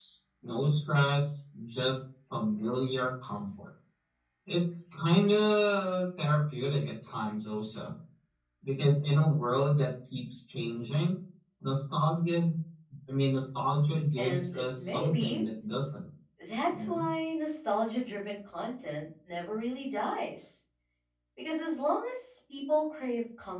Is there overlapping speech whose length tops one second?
Yes, from 14.2 s

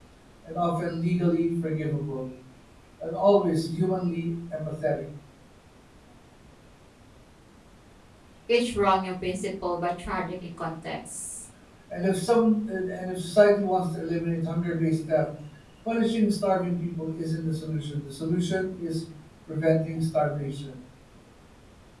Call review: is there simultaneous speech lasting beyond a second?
No

